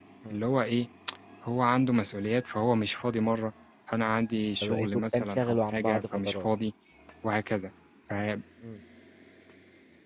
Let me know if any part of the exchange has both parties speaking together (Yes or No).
Yes